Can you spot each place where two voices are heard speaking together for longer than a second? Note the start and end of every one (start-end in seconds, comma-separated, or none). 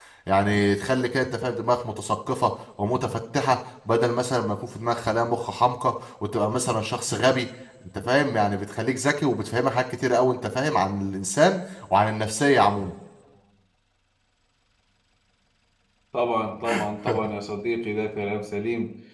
none